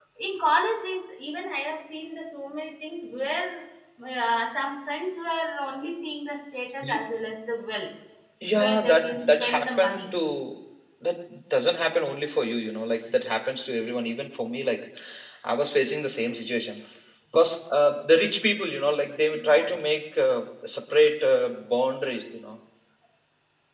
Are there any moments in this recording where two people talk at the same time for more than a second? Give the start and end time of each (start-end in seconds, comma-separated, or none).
8.6-10.1